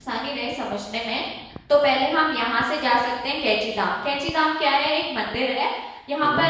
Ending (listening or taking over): listening